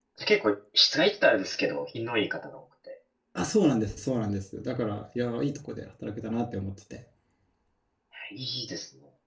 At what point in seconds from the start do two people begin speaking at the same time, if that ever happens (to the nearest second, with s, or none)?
none